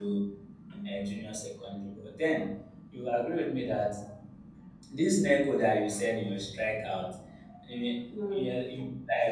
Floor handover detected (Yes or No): No